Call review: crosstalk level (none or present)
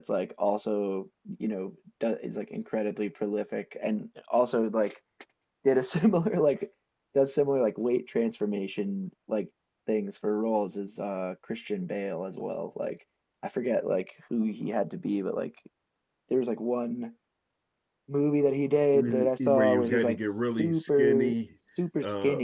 present